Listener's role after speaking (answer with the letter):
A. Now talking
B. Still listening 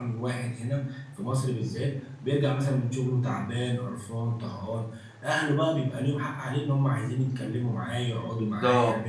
A